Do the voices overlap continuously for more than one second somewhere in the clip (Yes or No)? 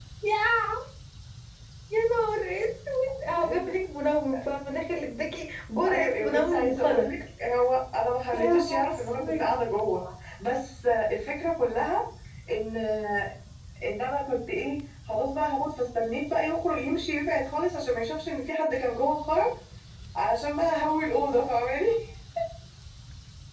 Yes